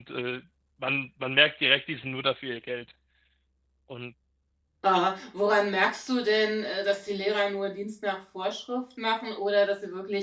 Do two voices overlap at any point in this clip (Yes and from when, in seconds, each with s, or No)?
No